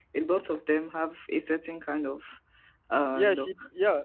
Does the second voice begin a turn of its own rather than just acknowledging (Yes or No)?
Yes